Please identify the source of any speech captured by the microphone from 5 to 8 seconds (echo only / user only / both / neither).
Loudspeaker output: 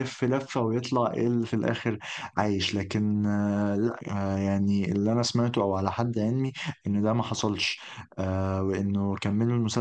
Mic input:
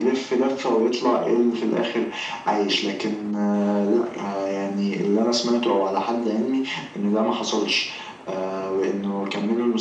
echo only